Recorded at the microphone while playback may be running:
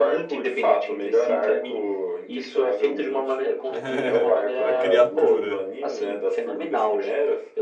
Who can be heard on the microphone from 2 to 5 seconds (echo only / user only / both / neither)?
both